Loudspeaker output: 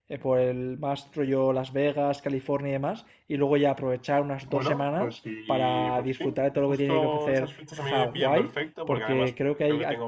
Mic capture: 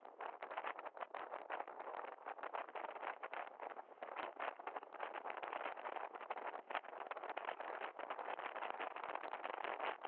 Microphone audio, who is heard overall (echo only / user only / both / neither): neither